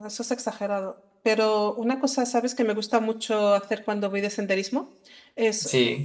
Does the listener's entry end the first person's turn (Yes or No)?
No